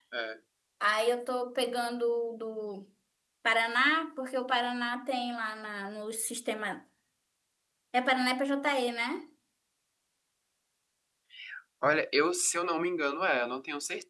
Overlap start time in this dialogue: none

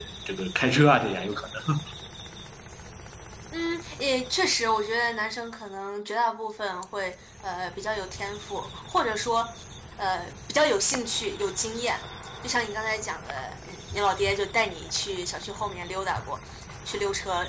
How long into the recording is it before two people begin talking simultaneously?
none

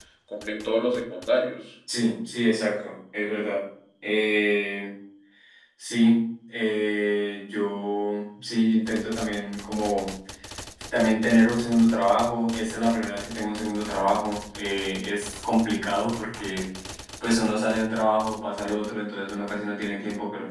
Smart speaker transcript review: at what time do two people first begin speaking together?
none

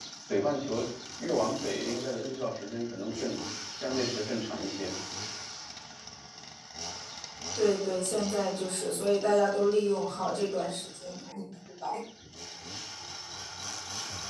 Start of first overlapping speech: none

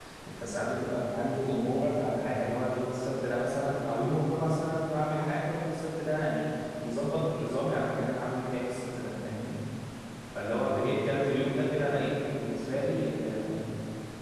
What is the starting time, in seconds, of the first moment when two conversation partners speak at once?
none

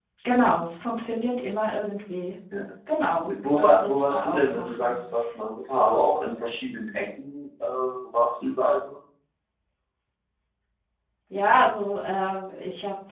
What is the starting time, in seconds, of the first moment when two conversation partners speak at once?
3.2 s

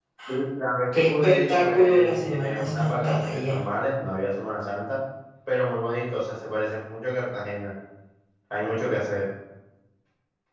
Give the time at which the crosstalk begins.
0.9 s

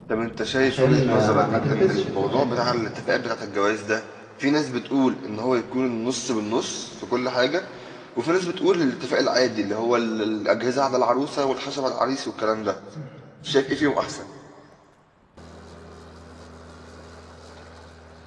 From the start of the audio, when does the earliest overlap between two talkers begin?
0.6 s

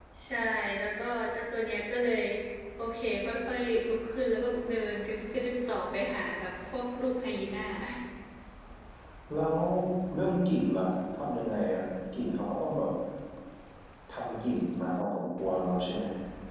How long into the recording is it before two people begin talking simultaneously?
none

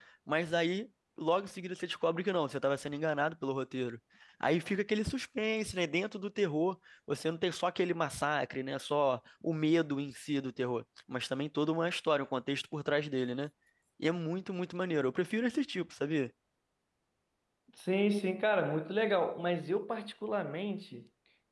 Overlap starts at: none

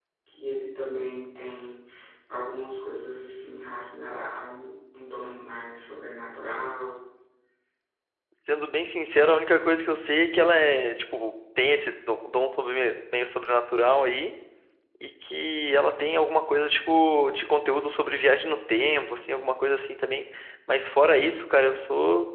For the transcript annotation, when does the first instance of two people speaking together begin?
none

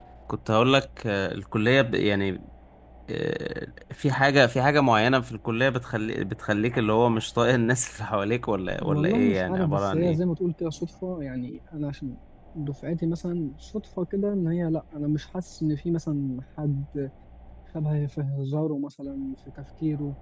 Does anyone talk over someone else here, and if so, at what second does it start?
8.8 s

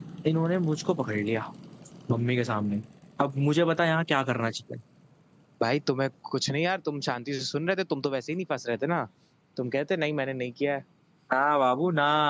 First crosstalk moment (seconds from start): none

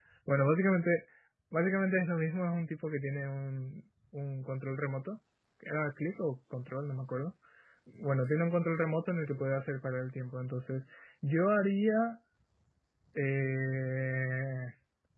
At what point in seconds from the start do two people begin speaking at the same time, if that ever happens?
none

